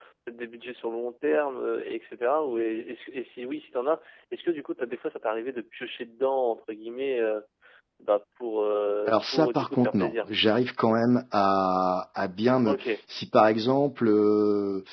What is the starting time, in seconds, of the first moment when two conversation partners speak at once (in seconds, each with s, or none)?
9.1 s